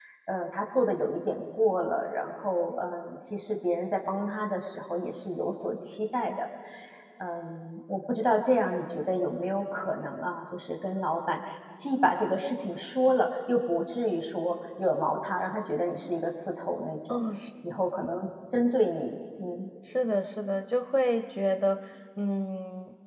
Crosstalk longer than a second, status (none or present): none